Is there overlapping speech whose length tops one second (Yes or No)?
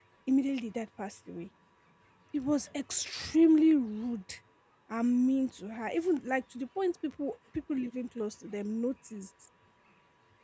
No